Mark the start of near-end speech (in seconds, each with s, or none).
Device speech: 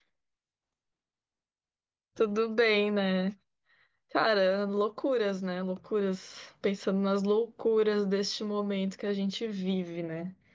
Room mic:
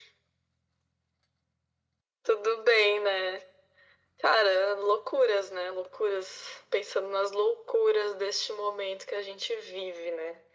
none